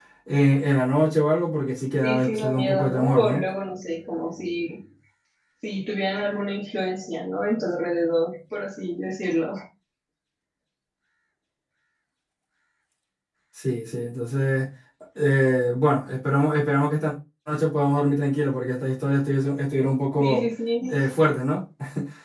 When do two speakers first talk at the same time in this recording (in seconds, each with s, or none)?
2.0 s